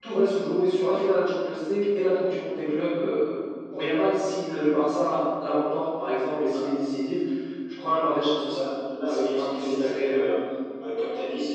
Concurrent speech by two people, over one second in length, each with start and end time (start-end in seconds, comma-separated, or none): 9.1-10.3